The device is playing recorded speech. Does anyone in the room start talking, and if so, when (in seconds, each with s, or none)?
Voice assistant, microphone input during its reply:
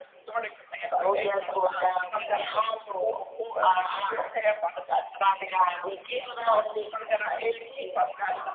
none